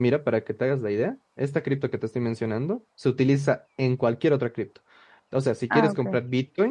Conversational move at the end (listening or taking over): listening